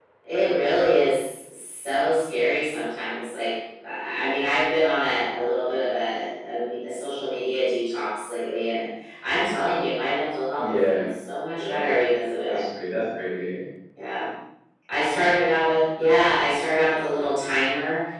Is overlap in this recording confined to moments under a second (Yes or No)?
Yes